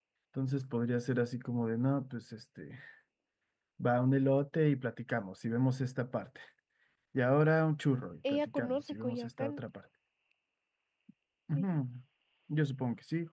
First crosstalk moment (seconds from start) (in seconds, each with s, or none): 8.3 s